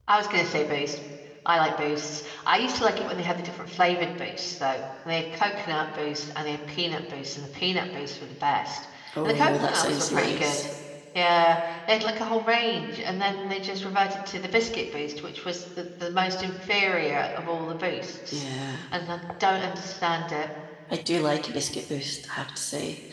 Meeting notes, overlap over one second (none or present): present